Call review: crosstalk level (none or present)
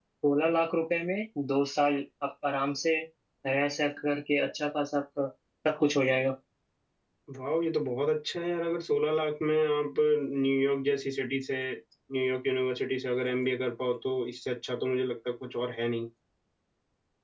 none